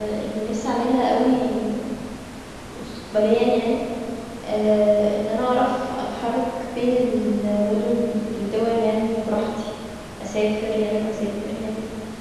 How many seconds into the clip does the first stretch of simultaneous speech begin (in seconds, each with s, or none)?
none